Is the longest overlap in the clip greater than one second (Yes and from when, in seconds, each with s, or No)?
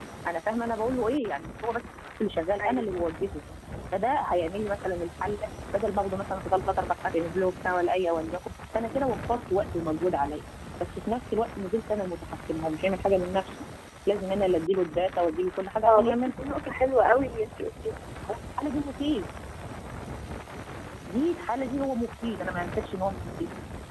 No